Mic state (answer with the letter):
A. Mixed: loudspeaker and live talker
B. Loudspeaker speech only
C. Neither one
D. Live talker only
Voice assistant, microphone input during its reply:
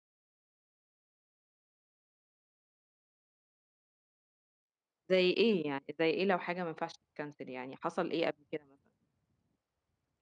D